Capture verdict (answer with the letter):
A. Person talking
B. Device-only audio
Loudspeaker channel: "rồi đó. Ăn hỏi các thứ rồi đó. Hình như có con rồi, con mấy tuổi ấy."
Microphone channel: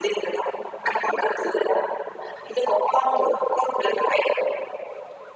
B